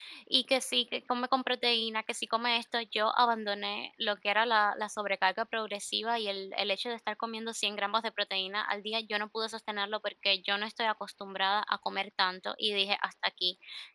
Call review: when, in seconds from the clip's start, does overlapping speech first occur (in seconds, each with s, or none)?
none